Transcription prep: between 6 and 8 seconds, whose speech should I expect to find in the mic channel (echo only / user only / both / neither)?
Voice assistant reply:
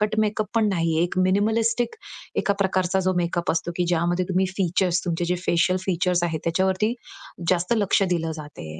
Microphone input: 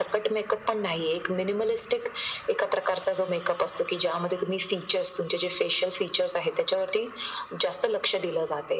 echo only